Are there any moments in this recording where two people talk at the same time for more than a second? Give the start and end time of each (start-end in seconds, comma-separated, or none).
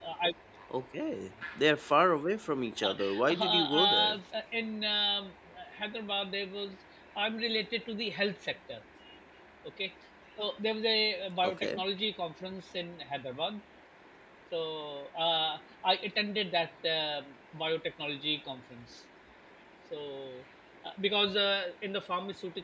2.8-4.2